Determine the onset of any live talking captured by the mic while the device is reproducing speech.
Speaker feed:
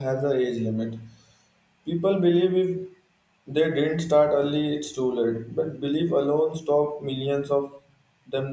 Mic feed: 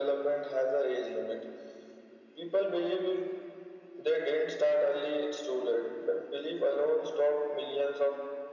none

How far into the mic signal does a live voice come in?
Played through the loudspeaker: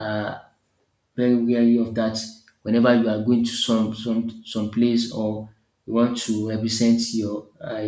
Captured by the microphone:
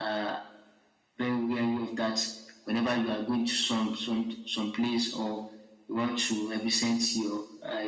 none

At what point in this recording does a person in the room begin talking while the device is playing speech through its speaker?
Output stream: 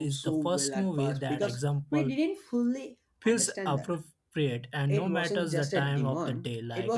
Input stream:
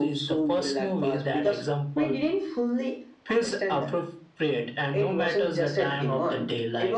none

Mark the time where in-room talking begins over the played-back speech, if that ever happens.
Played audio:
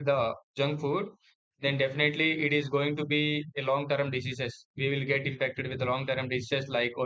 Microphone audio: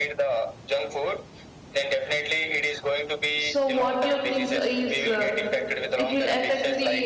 3.4 s

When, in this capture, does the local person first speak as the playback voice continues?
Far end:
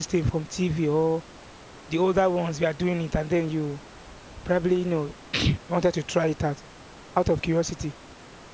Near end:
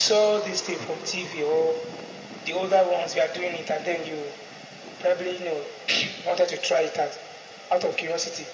none

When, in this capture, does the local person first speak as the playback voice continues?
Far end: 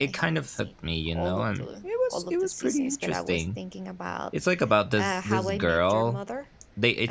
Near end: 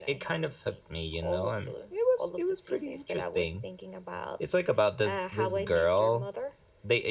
none

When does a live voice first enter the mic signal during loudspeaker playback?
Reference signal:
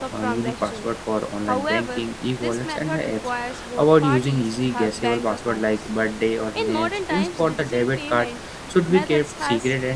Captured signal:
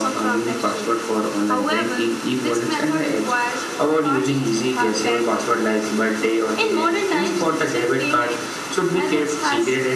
none

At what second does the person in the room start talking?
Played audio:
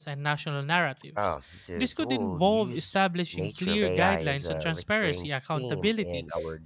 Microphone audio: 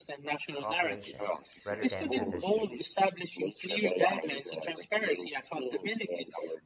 0.5 s

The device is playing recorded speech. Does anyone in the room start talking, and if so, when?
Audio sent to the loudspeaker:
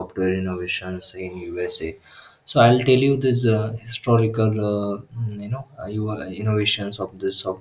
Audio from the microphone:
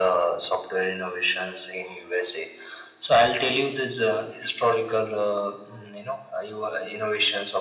none

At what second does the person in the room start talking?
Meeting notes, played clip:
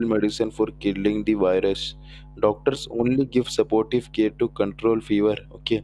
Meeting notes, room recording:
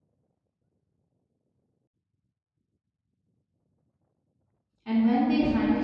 4.8 s

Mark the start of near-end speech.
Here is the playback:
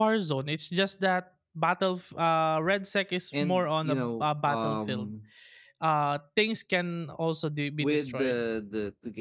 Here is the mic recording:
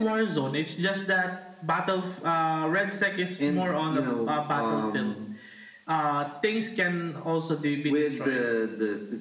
none

